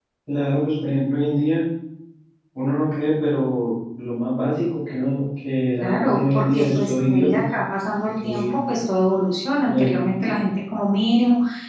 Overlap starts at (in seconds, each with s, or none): 5.8 s